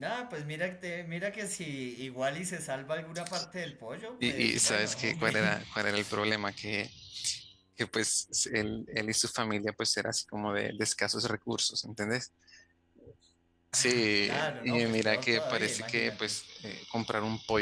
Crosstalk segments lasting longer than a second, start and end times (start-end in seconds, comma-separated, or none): 4.2-5.7, 13.7-16.4